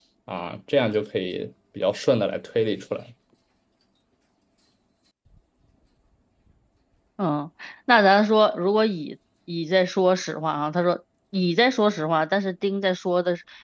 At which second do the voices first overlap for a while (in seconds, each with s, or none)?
none